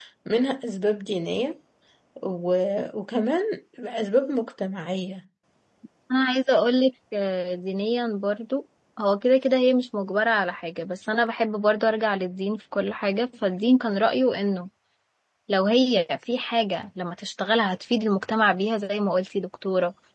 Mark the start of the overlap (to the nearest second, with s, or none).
none